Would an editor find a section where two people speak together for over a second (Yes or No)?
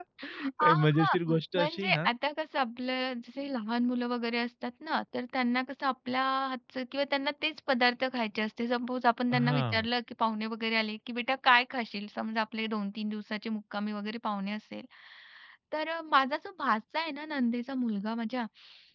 Yes